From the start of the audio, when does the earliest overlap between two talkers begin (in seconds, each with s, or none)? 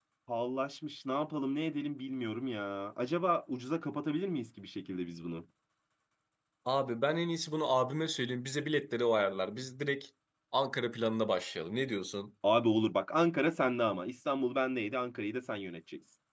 none